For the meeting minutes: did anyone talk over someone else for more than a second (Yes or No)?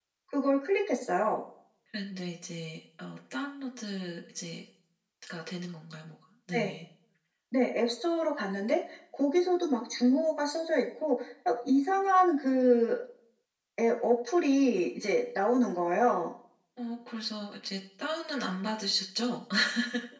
No